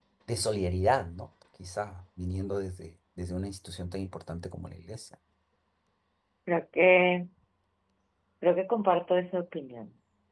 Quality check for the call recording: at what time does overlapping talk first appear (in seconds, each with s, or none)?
none